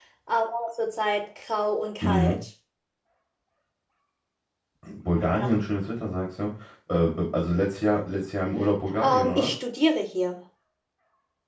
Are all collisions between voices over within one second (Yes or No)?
Yes